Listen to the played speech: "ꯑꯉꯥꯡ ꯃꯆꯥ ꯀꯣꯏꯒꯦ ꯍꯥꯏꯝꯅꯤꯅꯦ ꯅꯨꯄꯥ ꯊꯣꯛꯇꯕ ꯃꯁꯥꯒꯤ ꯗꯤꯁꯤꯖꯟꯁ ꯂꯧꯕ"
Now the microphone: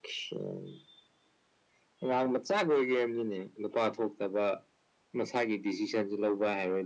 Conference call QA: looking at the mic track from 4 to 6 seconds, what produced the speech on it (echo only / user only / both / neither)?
echo only